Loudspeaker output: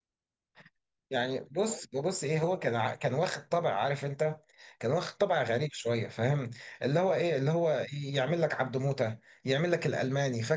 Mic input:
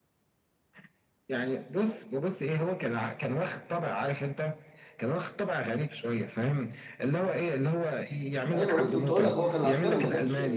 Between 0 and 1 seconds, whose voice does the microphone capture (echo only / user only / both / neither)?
neither